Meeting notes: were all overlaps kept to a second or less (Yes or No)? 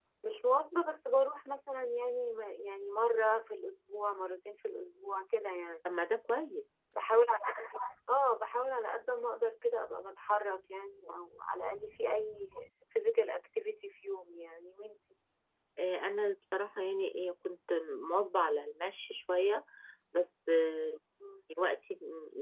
Yes